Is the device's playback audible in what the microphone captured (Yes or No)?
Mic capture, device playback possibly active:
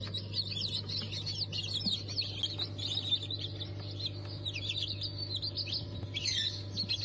No